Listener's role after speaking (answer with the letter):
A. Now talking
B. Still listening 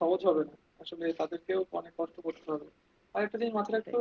B